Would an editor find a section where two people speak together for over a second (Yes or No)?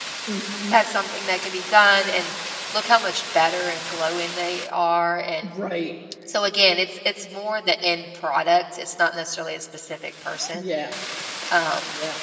No